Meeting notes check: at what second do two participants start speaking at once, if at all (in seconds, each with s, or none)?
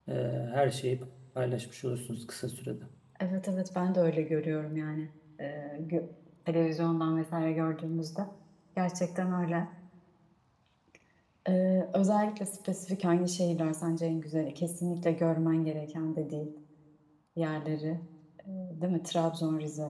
none